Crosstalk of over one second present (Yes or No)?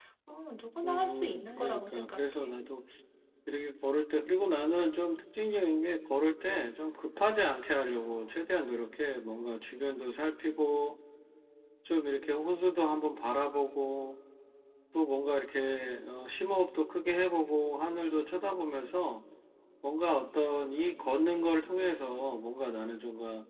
Yes